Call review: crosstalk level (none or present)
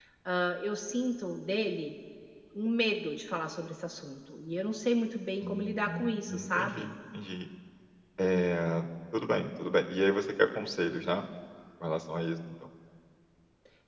present